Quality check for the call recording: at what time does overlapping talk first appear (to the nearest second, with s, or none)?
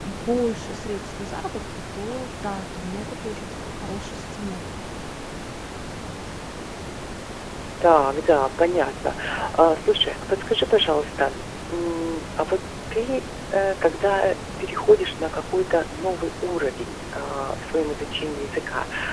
none